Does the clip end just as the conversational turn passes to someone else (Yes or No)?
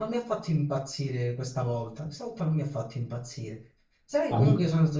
No